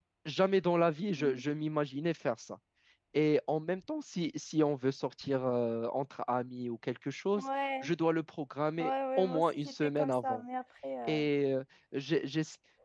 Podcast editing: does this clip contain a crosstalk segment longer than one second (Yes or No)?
Yes